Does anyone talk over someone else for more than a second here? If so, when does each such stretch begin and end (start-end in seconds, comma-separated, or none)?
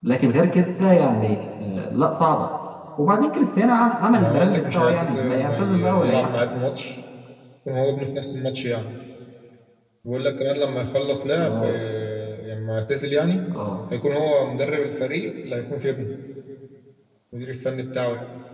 4.1-6.3